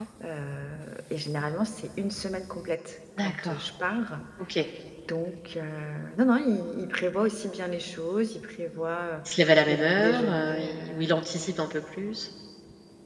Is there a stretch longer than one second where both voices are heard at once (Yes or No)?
Yes